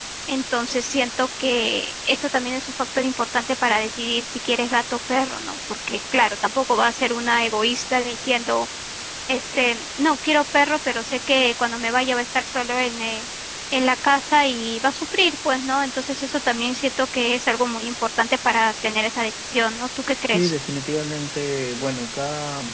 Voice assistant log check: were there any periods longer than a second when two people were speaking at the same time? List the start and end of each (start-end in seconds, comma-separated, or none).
none